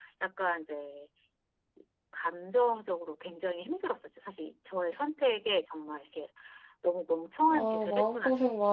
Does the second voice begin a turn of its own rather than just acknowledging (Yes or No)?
Yes